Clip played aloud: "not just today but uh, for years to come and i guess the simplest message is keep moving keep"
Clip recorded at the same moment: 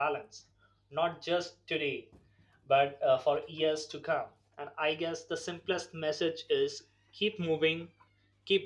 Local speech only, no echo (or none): none